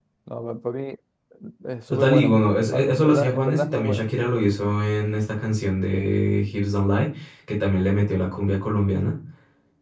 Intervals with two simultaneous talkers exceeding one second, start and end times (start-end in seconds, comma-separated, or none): 1.9-4.1